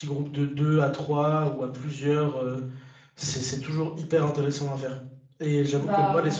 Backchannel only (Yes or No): Yes